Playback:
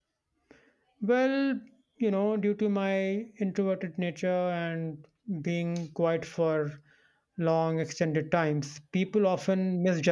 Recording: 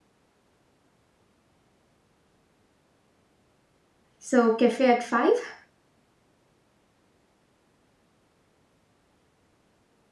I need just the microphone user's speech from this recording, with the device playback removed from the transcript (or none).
So, cafe at 5?